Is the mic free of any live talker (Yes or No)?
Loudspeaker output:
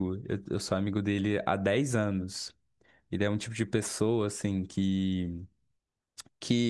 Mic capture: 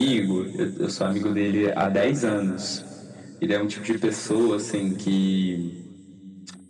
Yes